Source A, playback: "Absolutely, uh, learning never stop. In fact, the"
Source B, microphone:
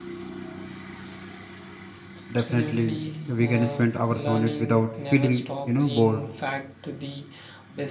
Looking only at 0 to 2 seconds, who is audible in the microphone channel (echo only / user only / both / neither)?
neither